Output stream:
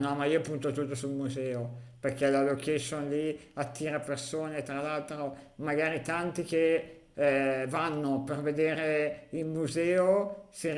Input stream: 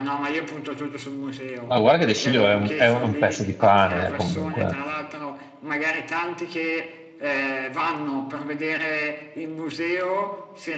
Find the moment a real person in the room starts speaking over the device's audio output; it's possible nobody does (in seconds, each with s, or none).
1.7 s